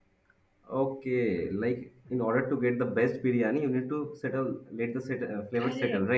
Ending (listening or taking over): taking over